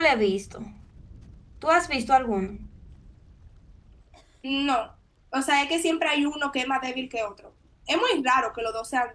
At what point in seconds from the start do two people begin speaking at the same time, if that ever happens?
none

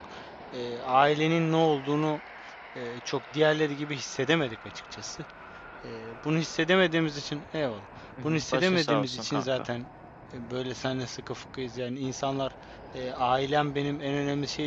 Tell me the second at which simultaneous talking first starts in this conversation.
8.2 s

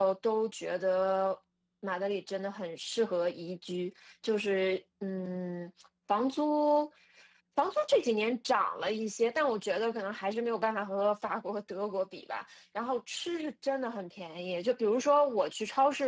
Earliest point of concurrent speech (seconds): none

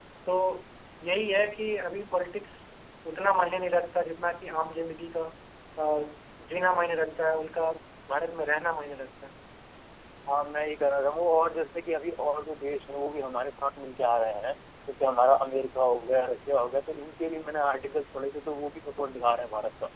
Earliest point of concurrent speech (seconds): none

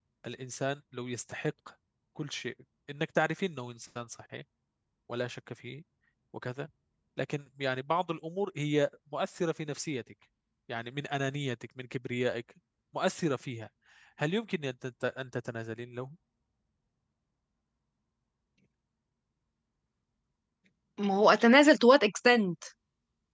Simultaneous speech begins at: none

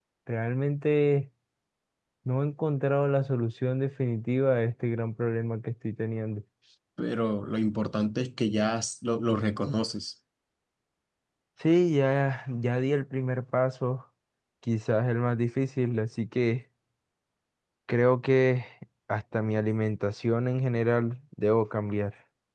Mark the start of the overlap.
none

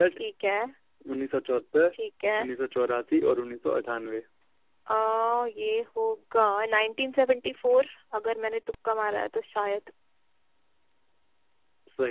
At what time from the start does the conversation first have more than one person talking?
none

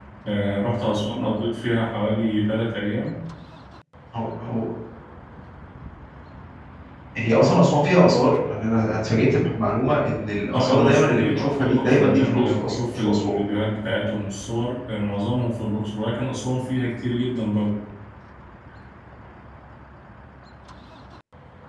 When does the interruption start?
10.5 s

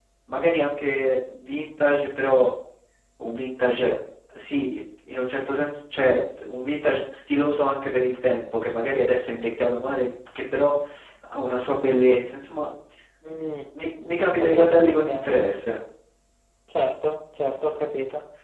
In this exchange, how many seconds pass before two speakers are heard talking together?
14.2 s

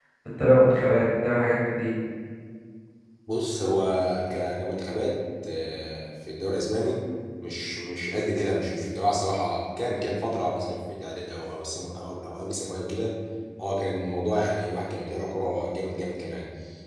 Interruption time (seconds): none

